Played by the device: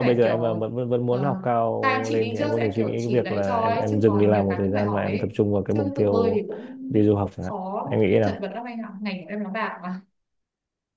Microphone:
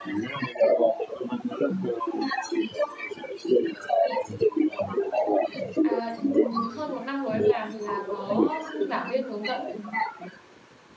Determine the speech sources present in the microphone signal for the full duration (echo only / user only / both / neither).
both